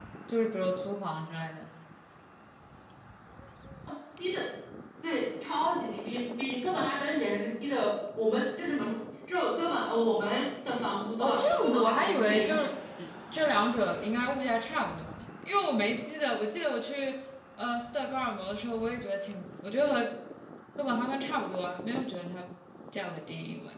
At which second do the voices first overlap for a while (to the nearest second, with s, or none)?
11 s